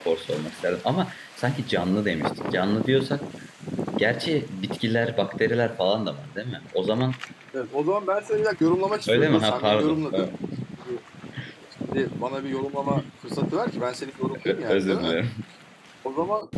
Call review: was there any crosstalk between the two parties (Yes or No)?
Yes